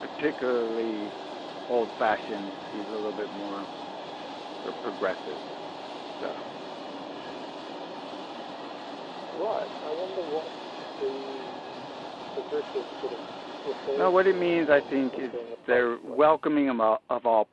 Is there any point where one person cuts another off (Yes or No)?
Yes